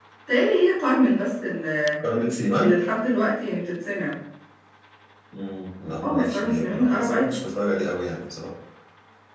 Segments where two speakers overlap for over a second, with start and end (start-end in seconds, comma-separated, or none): 6.0-7.4